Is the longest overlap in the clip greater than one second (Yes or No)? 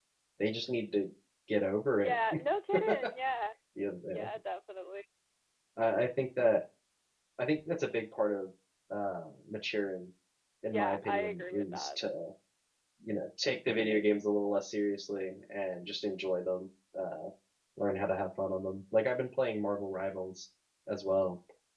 Yes